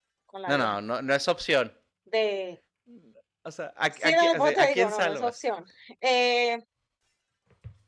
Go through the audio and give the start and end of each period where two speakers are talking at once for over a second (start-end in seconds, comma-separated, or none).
4.0-5.3